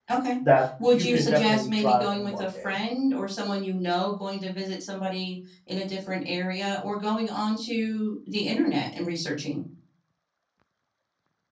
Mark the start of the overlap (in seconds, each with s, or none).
0.9 s